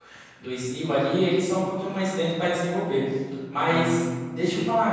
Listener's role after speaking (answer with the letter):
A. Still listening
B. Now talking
A